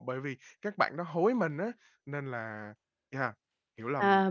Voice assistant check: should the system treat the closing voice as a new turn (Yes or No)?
Yes